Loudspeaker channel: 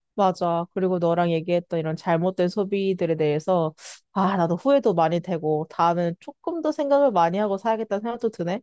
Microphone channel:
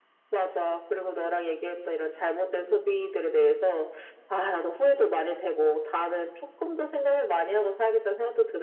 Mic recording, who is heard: echo only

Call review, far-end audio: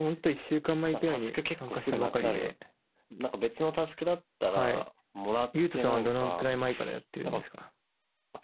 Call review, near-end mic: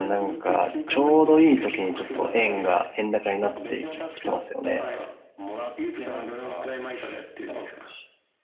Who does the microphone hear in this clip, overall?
both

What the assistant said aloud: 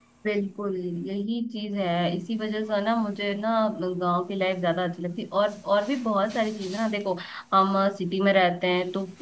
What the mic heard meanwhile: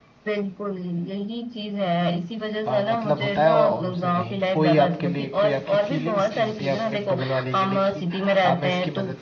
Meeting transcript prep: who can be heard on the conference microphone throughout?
both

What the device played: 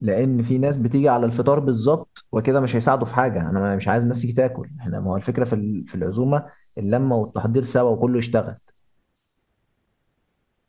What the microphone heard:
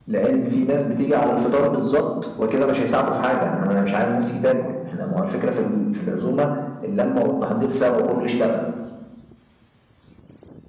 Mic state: echo only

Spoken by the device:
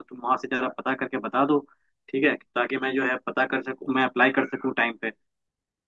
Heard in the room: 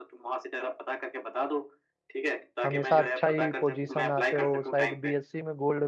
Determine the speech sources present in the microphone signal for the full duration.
both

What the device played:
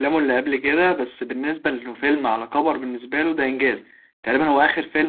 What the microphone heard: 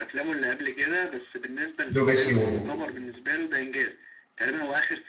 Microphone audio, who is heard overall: both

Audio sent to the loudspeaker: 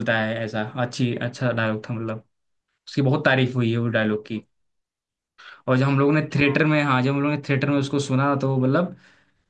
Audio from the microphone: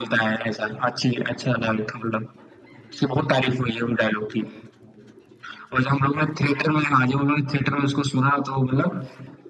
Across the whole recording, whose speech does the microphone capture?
echo only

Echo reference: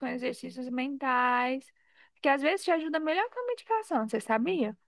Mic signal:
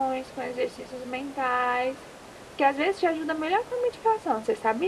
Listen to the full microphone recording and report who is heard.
echo only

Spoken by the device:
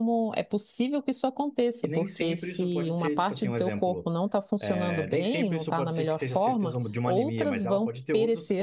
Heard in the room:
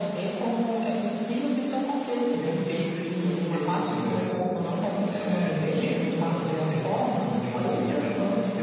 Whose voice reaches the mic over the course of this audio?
echo only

